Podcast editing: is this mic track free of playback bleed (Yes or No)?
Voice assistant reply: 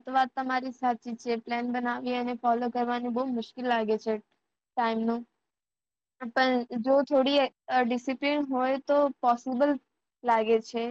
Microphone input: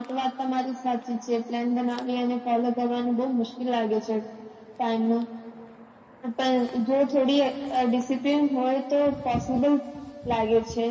No